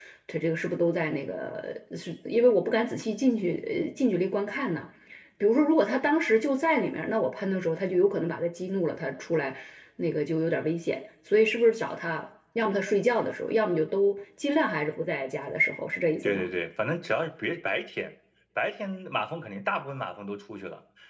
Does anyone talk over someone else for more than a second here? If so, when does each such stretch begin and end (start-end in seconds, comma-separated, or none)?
none